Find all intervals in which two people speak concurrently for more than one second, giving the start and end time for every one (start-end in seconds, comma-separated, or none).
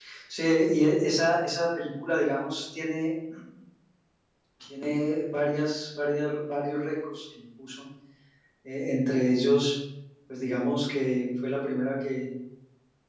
none